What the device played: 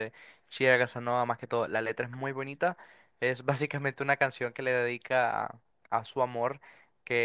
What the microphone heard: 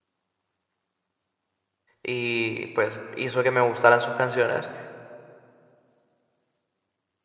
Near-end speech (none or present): present